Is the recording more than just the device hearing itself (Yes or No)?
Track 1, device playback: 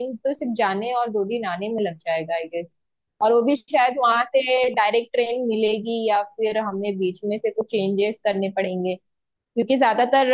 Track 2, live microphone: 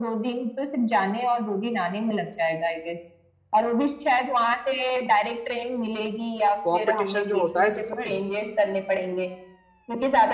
Yes